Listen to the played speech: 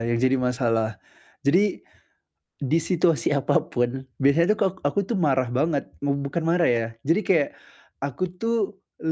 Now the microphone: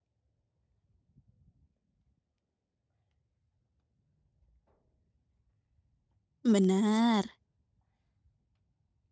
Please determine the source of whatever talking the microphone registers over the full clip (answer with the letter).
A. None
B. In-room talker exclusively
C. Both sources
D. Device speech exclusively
B